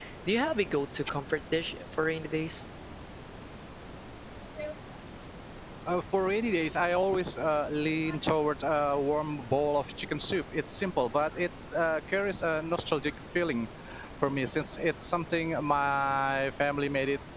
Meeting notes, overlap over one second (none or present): none